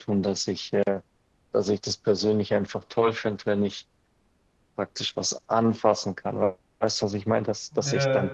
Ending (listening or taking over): listening